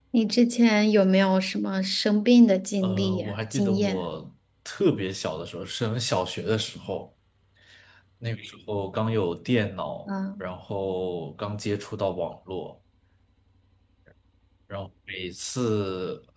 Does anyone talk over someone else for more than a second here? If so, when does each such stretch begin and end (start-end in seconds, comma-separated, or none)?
2.8-4.0